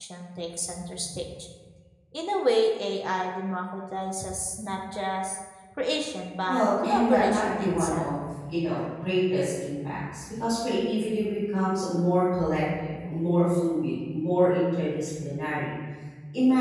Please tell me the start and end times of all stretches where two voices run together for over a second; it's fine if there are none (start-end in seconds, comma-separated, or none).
6.5-8.1